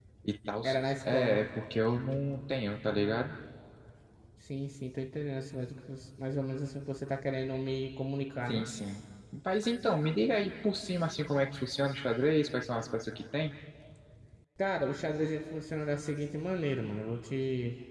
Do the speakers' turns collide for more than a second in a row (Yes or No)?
No